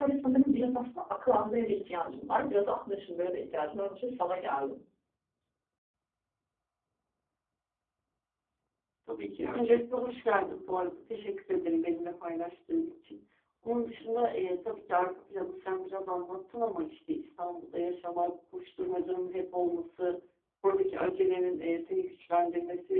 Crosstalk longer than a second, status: none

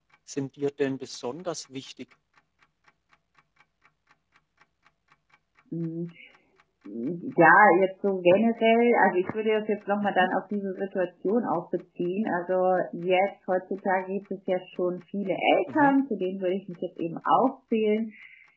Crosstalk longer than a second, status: none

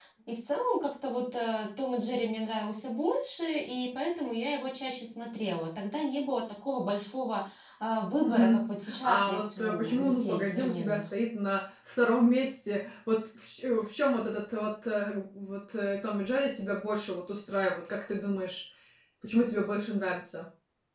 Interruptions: present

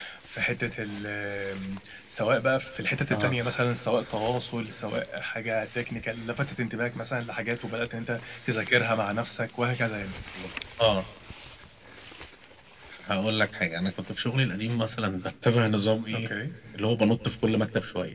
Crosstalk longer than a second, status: none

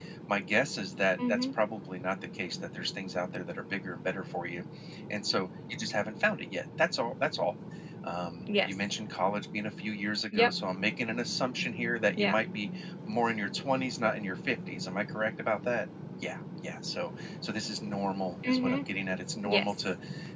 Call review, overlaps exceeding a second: none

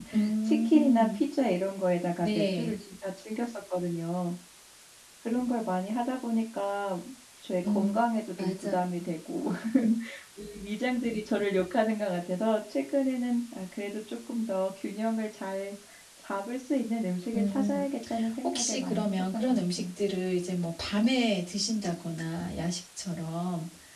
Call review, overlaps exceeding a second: present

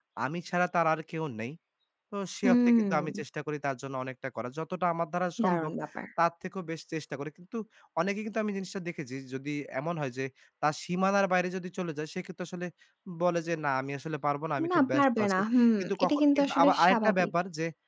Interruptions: present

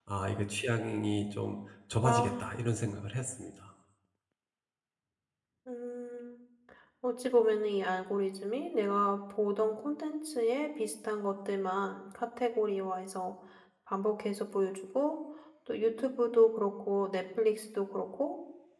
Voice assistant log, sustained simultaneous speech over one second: none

